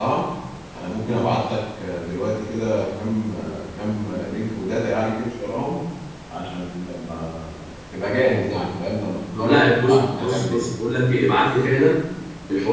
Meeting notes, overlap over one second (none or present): present